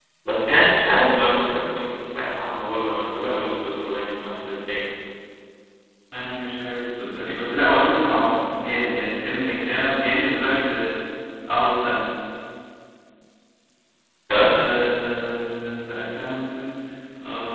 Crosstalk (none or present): none